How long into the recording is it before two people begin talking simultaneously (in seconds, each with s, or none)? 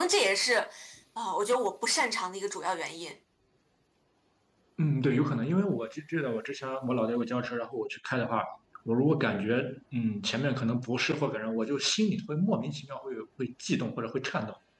none